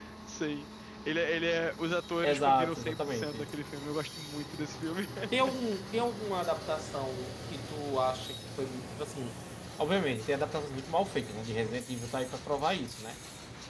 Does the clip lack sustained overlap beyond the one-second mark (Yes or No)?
No